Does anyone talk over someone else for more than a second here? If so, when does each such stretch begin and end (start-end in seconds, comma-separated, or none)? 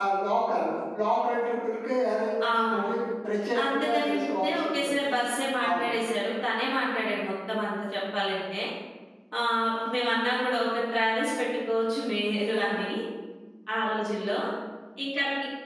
3.6-5.1